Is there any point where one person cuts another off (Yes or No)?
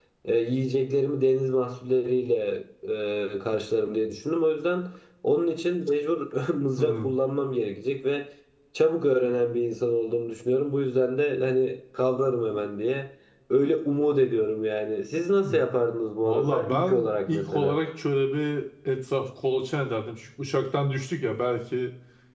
Yes